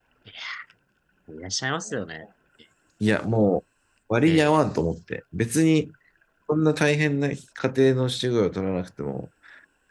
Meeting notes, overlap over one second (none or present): none